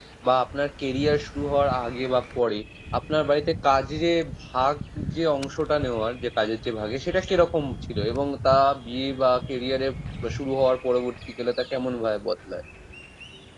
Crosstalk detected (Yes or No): No